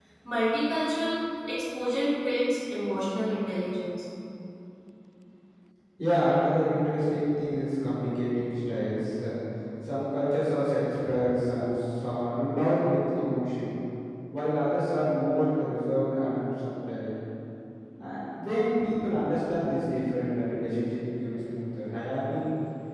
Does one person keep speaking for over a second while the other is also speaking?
No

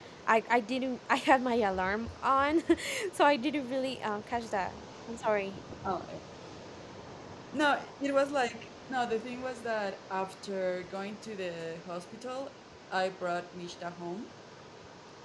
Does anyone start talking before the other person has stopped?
No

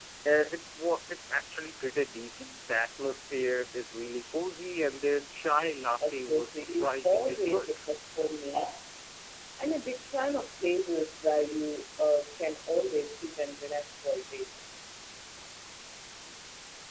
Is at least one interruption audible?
Yes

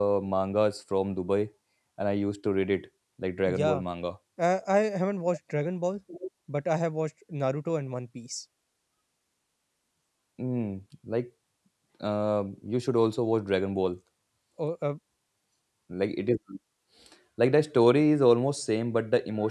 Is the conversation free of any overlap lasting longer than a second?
Yes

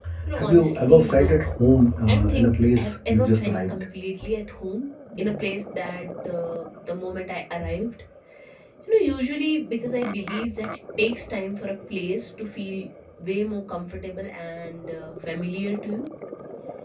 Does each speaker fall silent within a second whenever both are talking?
No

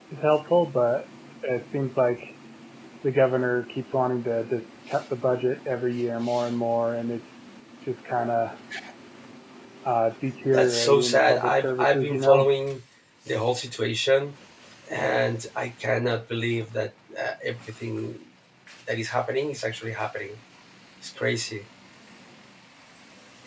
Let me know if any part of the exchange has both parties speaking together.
Yes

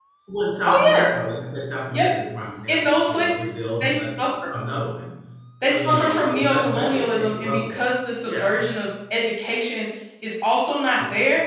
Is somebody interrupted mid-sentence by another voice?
Yes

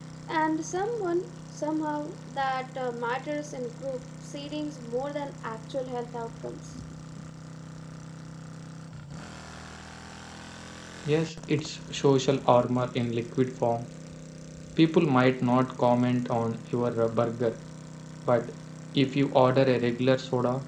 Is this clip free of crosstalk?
Yes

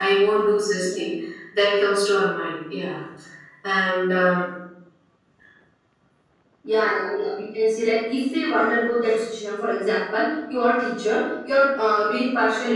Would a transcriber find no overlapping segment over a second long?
Yes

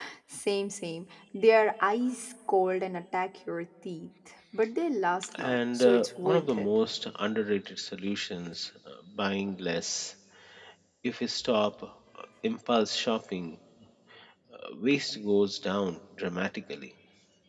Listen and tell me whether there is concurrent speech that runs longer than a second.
Yes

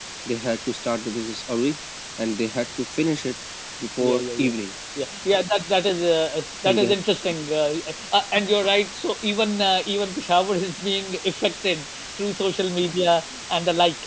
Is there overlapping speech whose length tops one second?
No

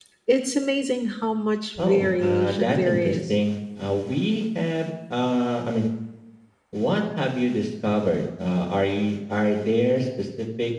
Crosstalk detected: Yes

